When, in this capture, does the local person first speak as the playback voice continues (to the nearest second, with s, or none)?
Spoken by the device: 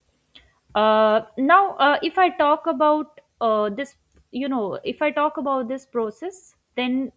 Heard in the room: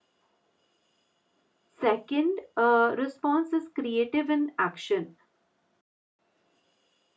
2 s